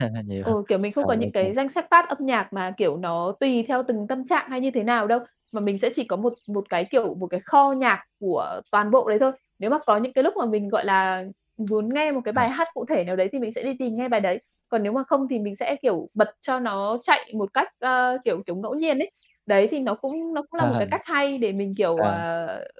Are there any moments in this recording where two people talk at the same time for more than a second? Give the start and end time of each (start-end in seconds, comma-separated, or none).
none